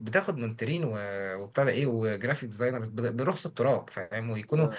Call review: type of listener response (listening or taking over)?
listening